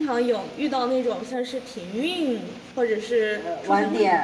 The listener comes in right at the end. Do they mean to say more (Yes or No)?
Yes